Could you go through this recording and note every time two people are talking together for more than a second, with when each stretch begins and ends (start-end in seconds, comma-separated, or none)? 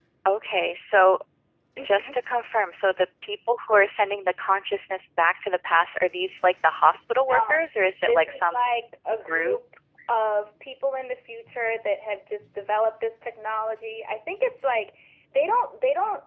7.2-8.7